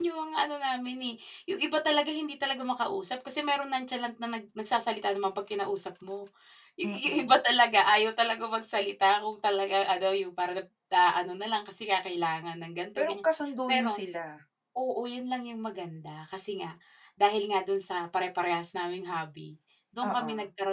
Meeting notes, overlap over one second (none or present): none